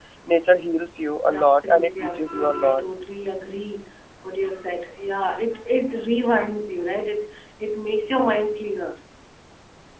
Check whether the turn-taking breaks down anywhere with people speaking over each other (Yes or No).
Yes